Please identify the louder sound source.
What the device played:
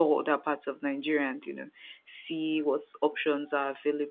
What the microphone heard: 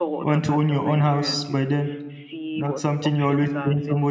user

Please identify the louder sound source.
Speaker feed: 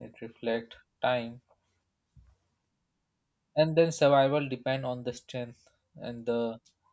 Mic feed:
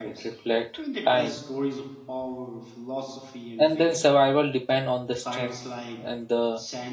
echo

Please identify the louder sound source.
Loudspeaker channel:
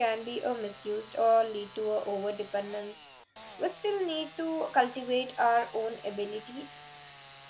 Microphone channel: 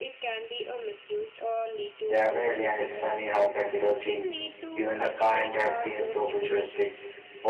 user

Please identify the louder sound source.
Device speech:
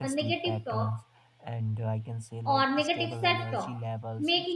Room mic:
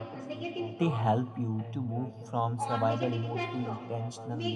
user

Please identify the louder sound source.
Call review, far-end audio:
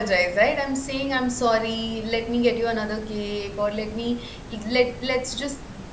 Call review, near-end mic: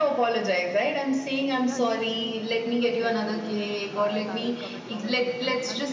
echo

